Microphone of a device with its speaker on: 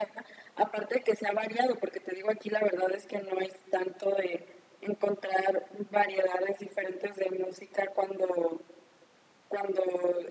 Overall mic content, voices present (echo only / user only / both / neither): echo only